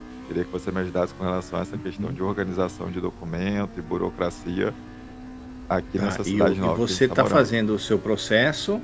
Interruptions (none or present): present